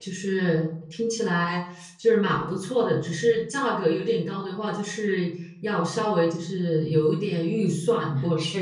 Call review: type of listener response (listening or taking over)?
taking over